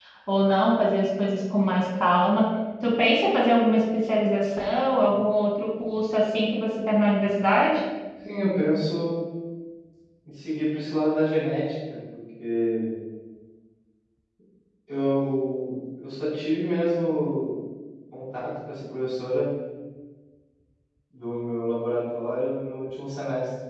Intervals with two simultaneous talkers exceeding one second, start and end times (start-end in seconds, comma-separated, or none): none